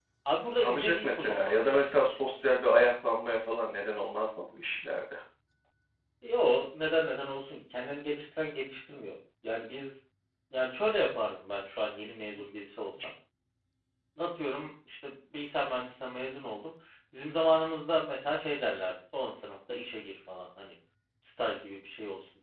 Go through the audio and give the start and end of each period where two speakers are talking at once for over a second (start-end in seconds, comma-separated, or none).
0.6-1.9